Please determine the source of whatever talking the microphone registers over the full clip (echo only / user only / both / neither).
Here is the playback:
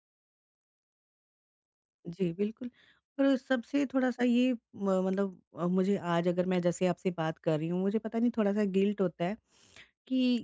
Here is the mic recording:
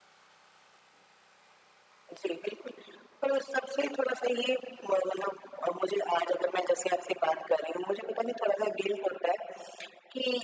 echo only